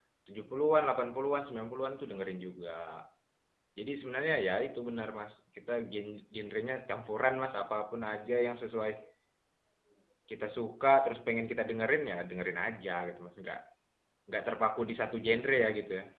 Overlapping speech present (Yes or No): No